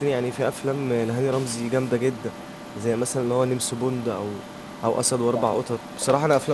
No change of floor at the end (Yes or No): Yes